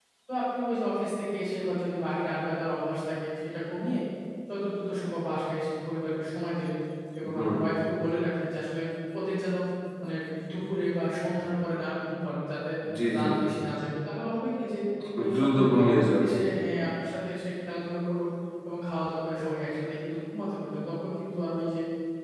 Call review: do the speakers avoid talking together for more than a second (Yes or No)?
No